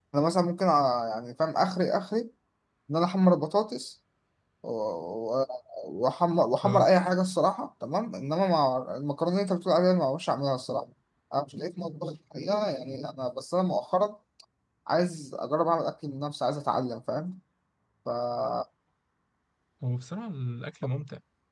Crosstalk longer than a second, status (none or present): none